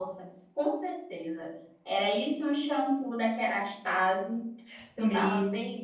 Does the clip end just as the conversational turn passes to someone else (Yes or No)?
Yes